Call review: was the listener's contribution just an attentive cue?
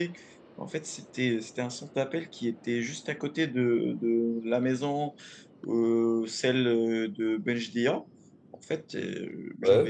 Yes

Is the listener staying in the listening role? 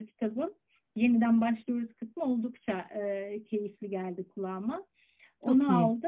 Yes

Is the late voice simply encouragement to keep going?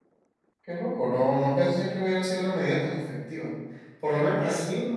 Yes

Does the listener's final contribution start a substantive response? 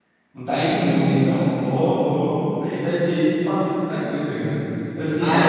Yes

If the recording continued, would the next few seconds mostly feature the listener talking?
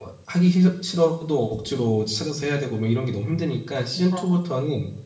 No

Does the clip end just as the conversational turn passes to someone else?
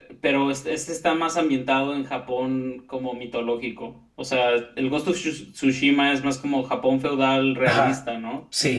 Yes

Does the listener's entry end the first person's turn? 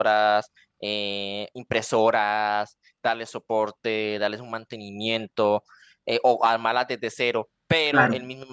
No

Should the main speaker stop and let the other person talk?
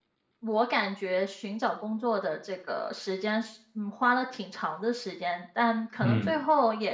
No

